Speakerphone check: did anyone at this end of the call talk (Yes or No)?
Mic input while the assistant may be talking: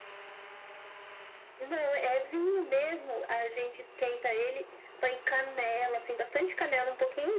No